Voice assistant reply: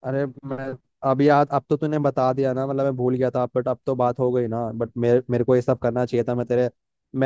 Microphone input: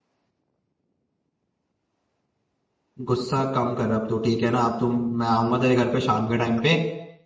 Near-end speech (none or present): present